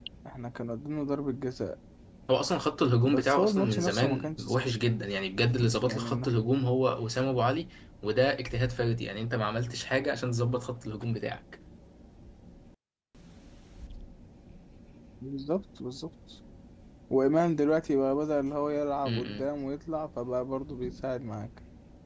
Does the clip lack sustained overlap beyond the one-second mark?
No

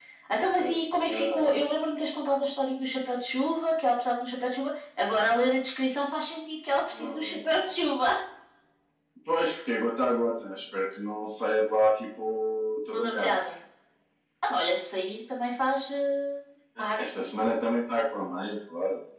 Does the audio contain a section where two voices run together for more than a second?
Yes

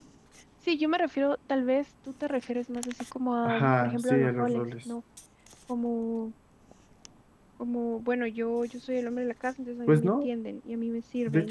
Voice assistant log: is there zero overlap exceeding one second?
No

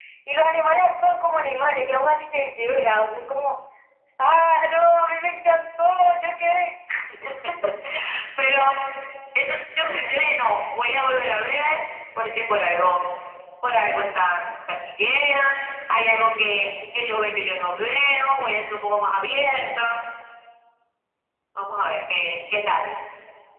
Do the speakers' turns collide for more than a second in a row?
No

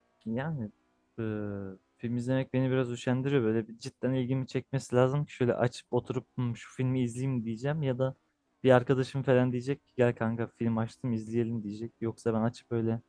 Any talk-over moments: No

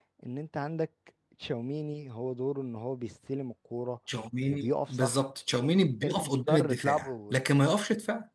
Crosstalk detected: Yes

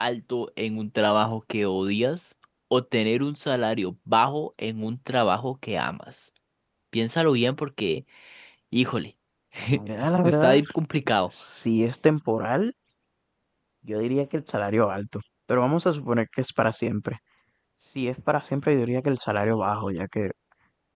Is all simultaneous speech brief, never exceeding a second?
Yes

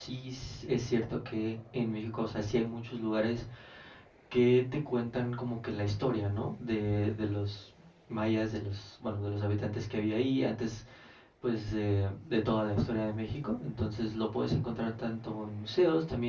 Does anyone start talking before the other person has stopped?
No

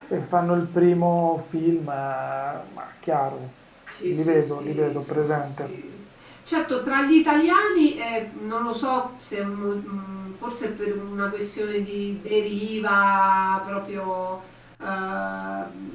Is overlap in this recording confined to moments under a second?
No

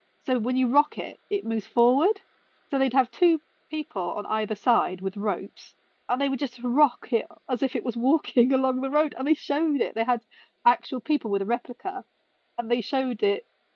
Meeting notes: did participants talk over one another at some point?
No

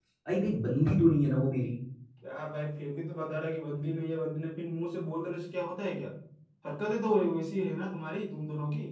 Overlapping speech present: No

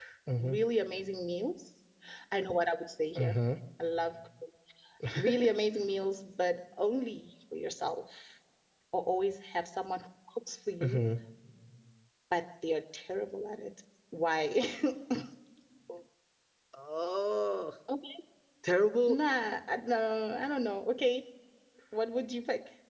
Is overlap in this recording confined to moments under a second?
Yes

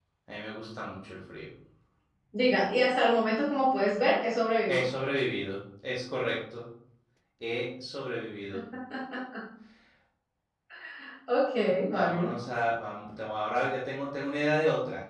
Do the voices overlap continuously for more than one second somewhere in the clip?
No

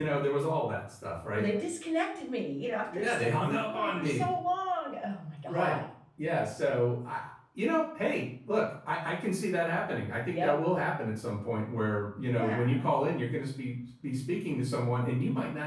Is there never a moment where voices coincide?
No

